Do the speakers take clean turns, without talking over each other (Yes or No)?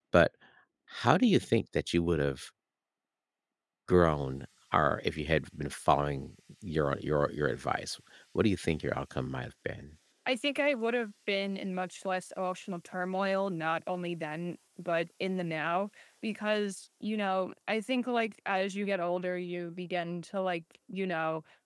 Yes